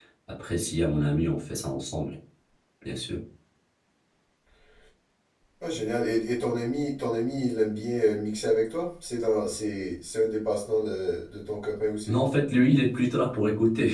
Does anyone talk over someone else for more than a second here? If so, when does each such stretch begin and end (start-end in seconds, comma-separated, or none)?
none